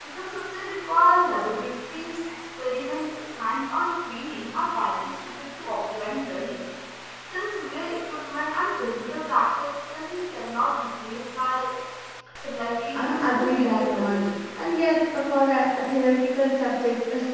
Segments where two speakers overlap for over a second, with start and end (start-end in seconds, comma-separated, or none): 13.0-14.3